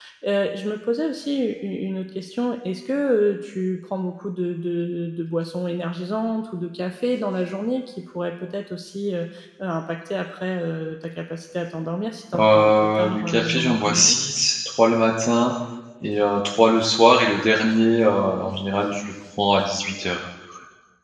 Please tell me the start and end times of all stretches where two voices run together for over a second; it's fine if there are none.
12.4-14.2

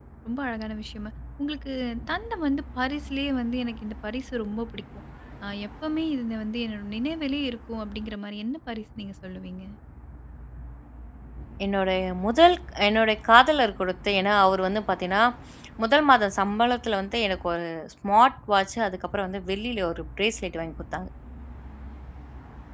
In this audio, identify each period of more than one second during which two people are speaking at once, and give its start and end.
none

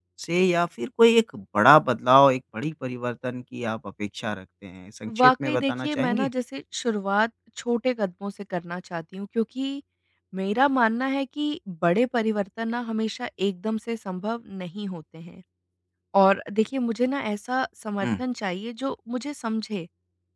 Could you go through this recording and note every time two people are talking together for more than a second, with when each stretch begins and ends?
5.1-6.3

